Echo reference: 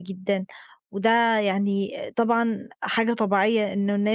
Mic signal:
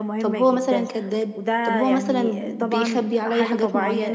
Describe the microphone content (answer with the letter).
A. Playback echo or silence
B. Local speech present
B